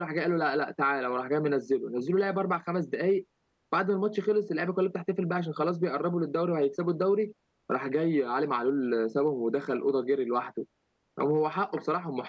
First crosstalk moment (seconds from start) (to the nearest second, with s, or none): none